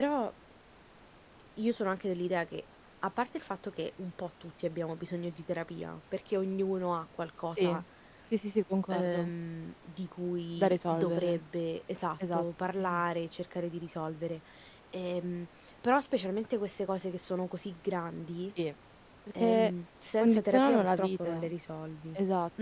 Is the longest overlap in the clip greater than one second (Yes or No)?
Yes